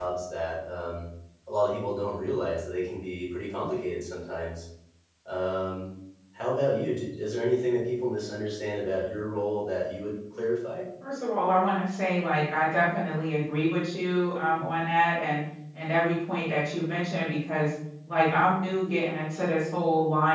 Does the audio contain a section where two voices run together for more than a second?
No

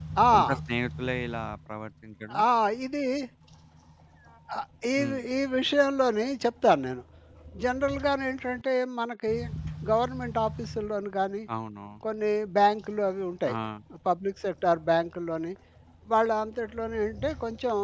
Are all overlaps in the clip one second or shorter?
Yes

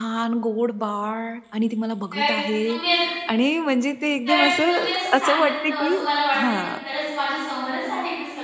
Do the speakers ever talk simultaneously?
Yes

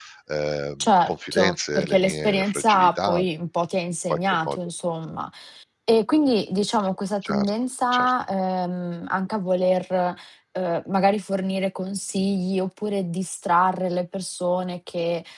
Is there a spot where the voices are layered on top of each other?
Yes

